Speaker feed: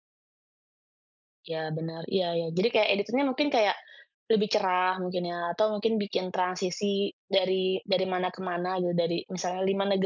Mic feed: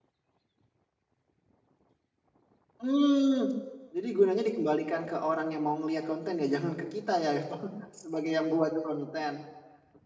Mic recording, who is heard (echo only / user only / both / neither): user only